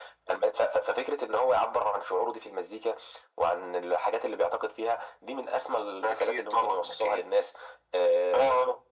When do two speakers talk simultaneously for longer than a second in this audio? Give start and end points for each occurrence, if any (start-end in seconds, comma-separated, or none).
6.0-7.3